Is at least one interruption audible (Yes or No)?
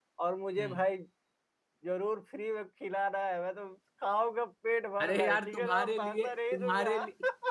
Yes